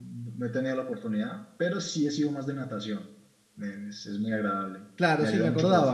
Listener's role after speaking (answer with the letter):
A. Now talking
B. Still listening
A